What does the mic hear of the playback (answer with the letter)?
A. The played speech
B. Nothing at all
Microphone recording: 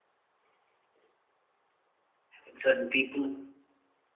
B